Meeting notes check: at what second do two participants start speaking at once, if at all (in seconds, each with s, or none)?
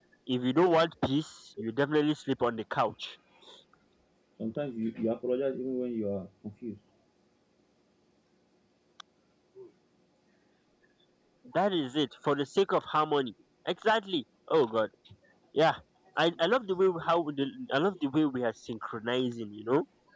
none